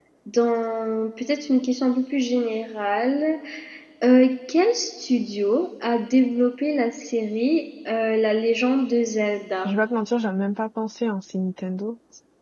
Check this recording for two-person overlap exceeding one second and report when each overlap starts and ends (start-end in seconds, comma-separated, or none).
none